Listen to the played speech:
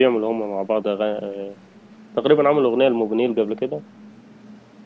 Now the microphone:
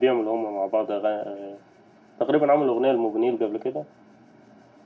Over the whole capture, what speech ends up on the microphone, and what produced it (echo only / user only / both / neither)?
echo only